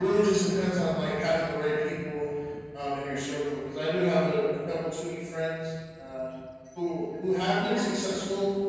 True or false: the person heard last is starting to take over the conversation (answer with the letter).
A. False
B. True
A